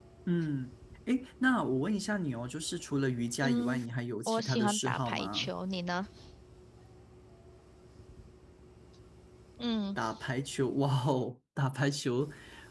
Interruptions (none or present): present